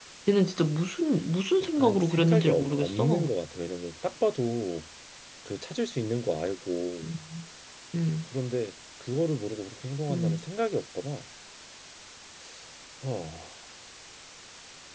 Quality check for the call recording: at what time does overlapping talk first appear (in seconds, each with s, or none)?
1.6 s